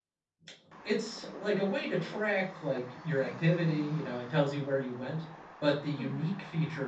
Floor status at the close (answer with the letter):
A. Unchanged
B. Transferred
A